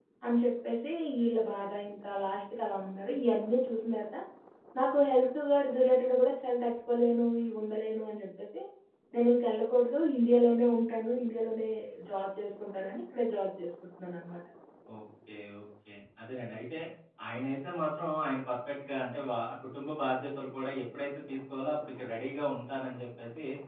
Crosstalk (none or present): none